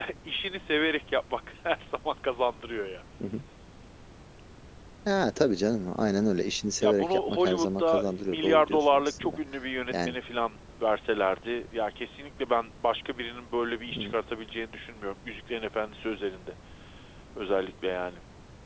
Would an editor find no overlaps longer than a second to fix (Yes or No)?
No